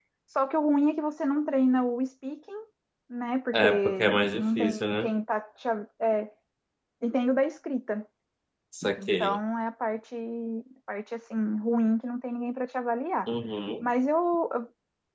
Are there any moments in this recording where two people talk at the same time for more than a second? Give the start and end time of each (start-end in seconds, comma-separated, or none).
3.5-5.1